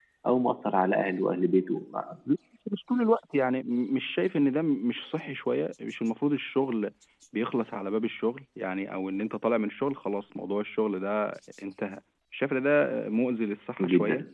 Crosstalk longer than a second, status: none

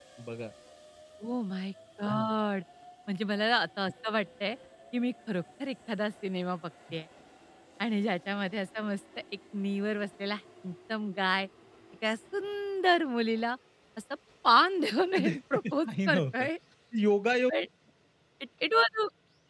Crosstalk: present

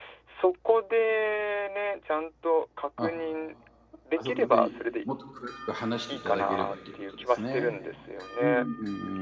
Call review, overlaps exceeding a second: present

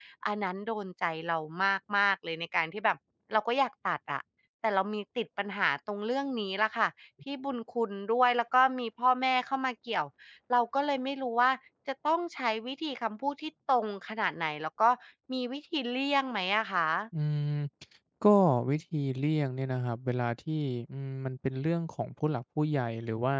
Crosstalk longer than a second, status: none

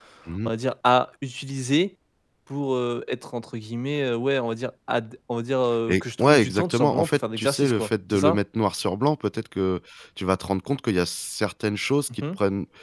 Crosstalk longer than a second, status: present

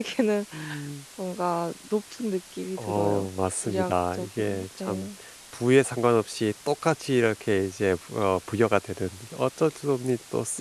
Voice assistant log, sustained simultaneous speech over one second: present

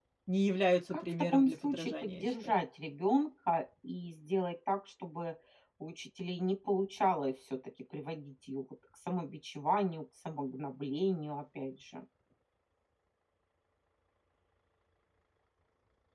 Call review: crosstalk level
present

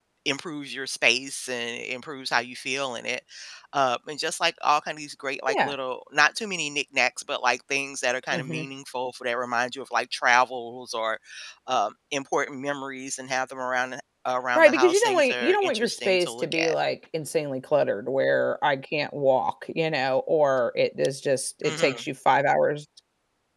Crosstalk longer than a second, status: present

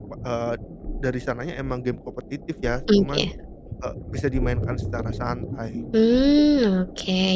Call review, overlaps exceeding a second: none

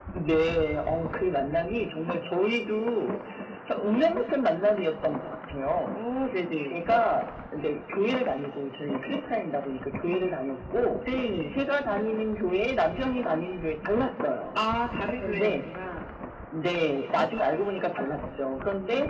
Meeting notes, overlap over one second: none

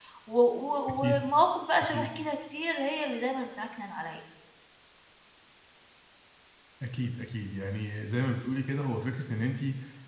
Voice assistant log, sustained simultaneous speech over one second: none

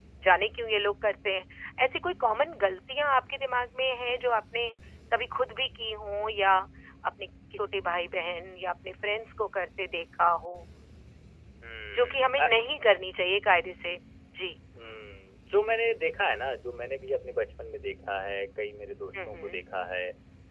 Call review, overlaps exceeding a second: none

